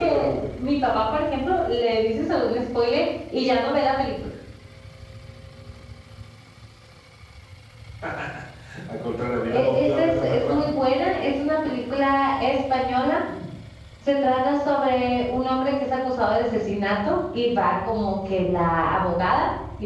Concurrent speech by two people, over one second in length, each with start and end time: 9.5-10.8

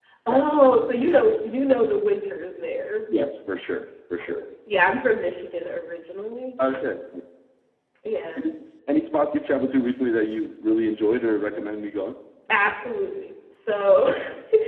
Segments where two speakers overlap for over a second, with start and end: none

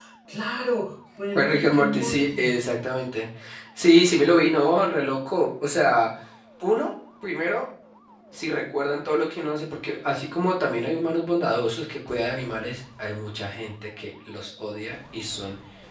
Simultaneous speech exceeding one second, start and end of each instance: 1.4-2.6

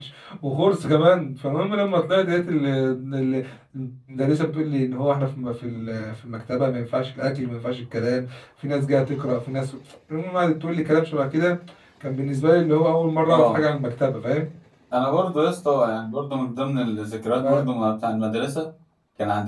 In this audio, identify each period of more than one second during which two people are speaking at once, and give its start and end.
none

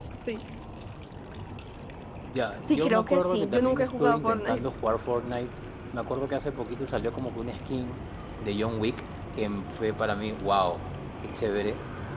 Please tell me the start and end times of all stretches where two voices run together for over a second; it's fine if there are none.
2.7-4.6

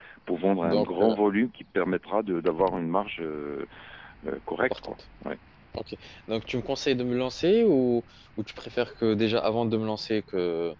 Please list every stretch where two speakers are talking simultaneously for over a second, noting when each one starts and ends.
none

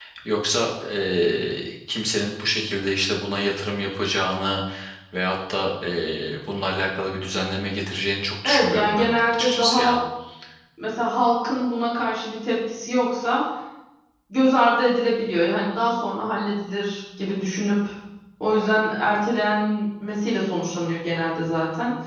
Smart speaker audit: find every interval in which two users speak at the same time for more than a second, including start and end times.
8.4-10.0

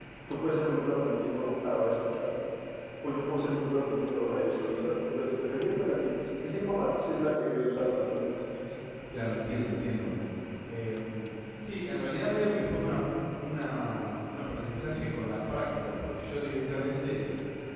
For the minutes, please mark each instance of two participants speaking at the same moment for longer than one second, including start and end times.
none

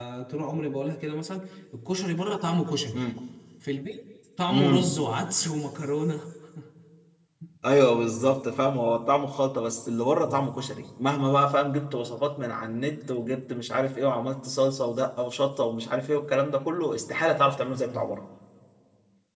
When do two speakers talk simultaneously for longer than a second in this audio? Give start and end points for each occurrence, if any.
none

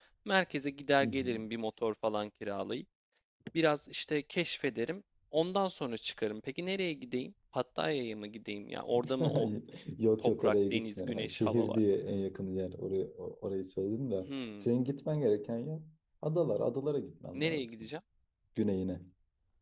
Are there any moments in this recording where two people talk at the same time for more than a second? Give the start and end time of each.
10.4-11.8

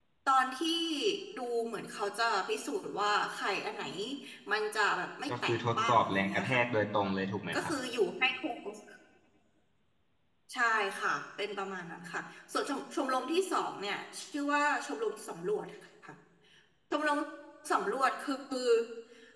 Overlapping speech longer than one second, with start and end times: 5.3-6.6

